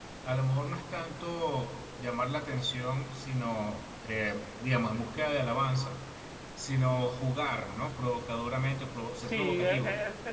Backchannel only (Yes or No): No